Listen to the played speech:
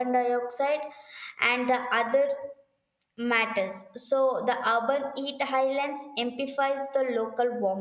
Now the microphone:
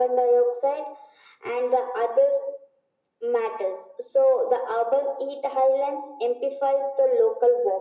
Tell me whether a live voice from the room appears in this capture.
No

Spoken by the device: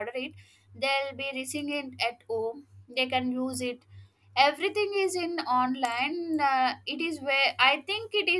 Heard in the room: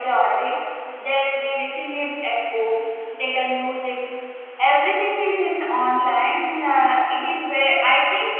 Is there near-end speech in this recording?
No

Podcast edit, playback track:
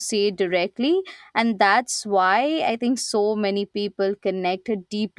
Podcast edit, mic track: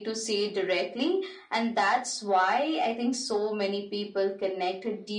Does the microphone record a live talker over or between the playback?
No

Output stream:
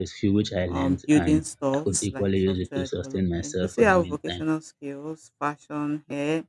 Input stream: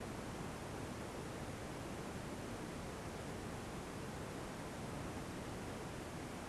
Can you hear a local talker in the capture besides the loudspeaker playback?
No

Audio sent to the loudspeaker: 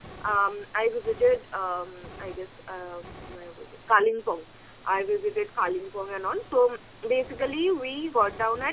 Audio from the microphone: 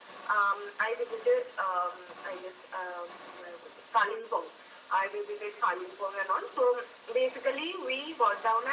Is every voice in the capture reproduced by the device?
Yes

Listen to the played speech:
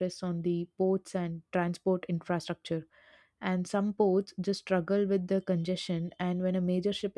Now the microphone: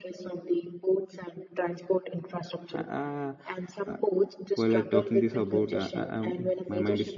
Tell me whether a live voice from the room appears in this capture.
Yes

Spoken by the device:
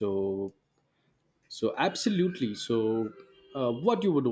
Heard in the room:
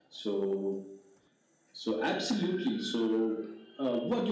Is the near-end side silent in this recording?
Yes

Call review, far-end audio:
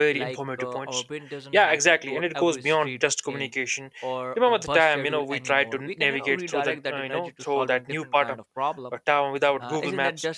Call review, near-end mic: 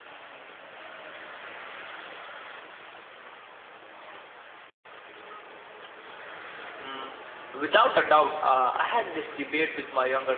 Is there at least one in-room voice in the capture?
Yes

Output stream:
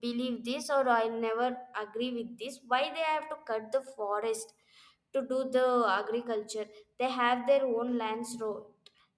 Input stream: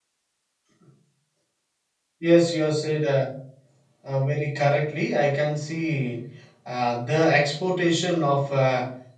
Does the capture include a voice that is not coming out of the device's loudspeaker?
Yes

